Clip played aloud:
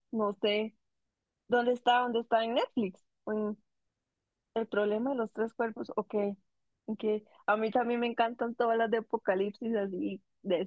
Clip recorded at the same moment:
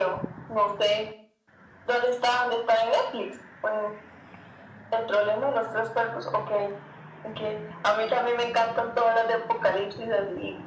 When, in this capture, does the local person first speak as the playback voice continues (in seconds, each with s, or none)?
none